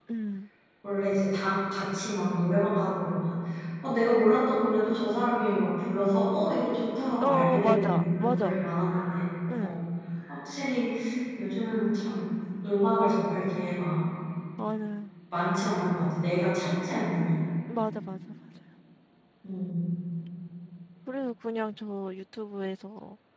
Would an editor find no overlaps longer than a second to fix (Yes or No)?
No